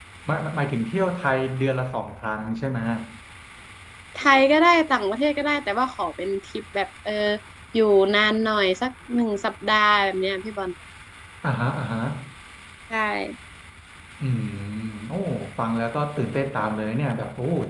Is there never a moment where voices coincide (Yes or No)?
Yes